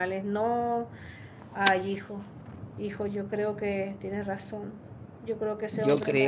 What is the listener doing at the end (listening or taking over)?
taking over